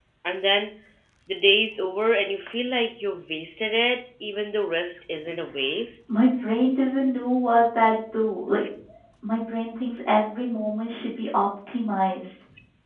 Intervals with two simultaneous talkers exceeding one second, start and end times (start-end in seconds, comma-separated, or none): none